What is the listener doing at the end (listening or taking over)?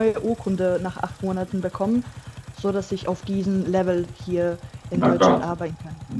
taking over